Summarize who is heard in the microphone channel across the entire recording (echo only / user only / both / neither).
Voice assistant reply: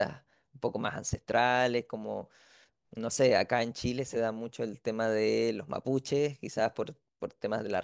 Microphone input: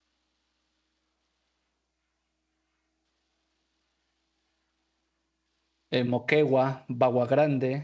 user only